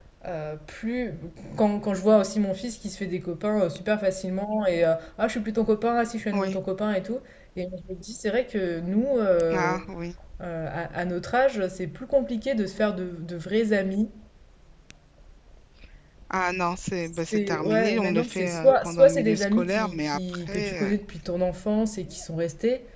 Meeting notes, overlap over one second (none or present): present